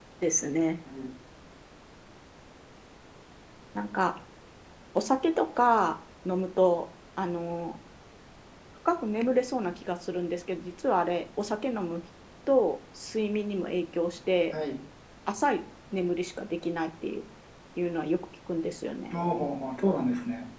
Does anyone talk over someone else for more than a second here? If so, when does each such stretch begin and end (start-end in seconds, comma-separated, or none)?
none